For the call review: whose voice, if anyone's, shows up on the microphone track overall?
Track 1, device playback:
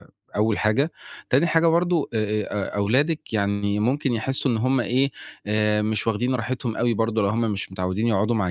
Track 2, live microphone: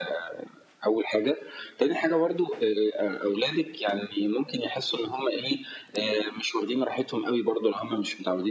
echo only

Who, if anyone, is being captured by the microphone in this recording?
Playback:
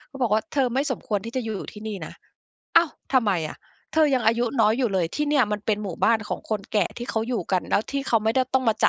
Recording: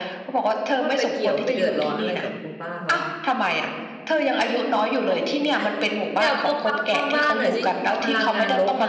both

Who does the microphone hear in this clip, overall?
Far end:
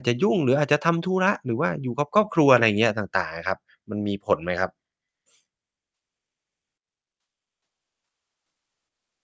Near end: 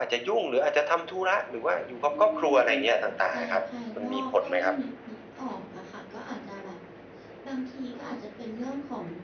both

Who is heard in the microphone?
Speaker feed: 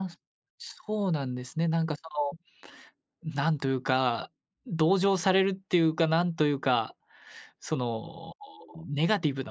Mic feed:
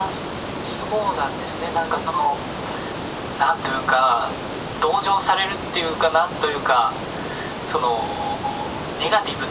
echo only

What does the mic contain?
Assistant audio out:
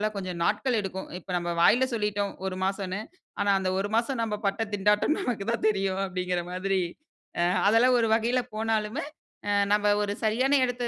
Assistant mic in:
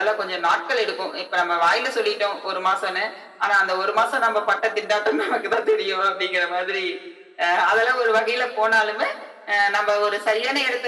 echo only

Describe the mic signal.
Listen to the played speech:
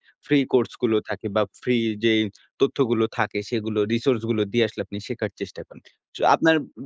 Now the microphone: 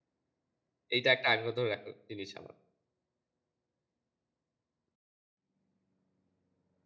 user only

